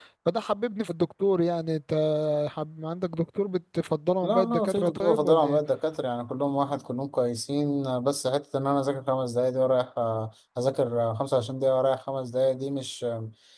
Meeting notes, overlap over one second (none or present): present